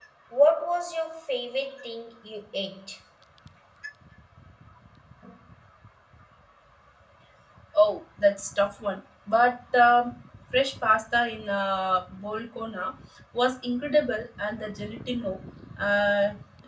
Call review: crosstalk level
none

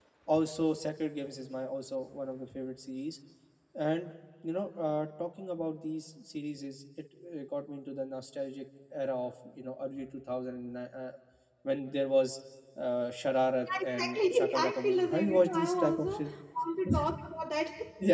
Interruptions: present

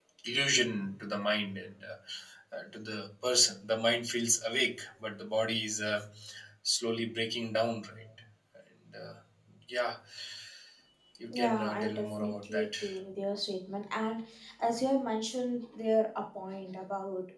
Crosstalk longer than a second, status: present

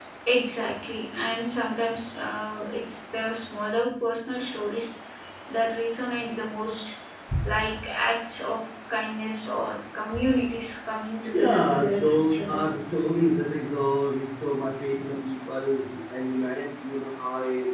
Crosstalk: present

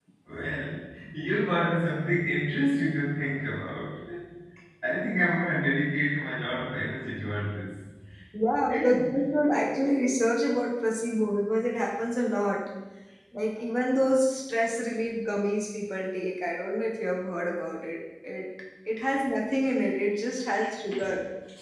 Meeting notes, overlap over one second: none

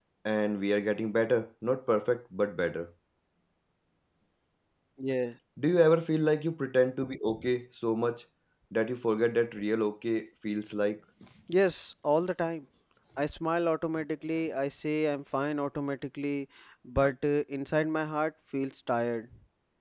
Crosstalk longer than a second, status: none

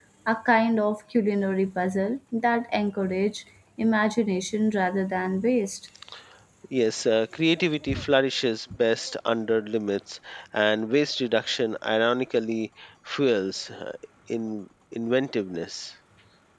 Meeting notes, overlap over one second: none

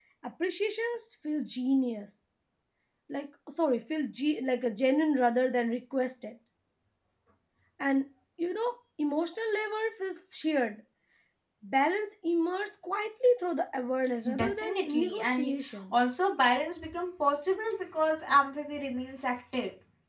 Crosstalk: present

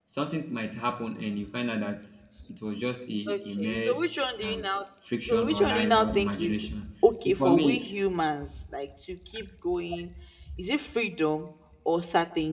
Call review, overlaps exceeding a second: present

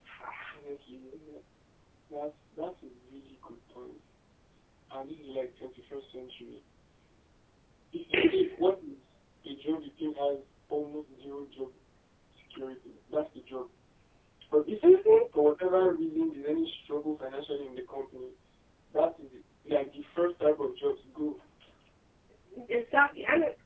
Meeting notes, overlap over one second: none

